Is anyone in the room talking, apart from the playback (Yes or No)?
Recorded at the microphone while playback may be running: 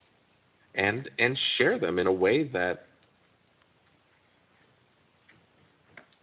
Yes